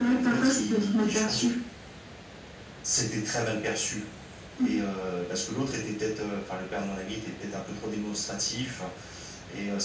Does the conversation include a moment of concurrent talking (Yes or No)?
Yes